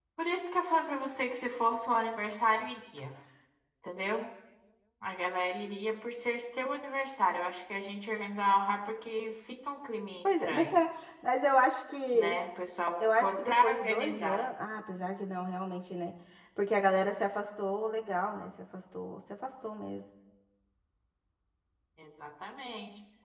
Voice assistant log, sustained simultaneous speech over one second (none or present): present